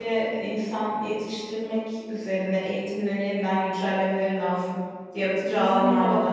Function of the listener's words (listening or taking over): taking over